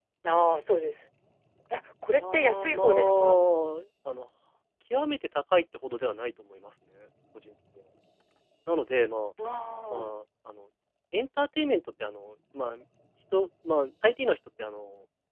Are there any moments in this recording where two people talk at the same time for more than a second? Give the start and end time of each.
2.1-3.4

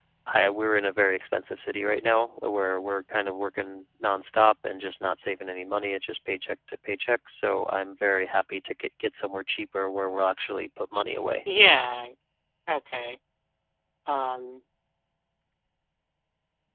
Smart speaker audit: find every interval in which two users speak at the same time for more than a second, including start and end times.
none

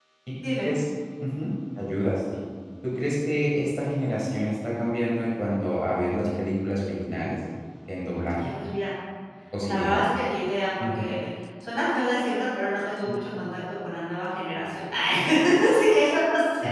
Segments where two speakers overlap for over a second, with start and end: none

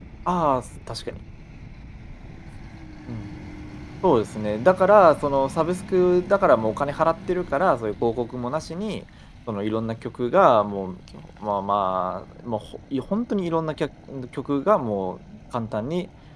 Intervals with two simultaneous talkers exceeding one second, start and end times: none

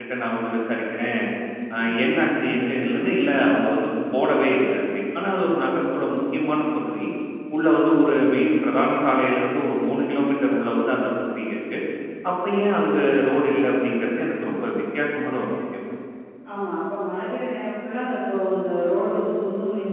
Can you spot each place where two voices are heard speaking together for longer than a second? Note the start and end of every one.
none

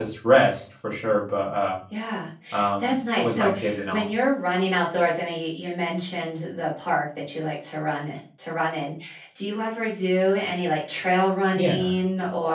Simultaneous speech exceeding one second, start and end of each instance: 2.8-4.1

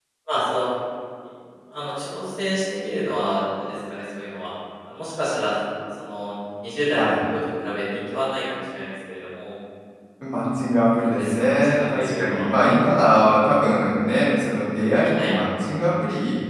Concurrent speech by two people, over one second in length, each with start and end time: 11.1-12.4

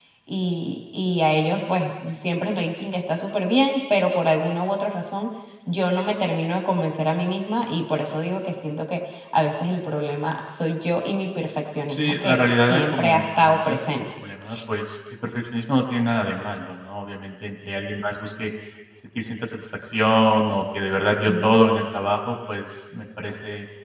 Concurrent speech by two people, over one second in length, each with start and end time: 11.9-14.0

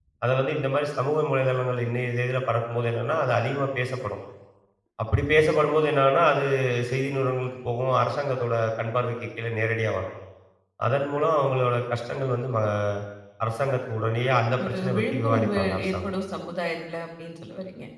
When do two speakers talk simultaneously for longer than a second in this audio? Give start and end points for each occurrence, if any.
14.7-16.1

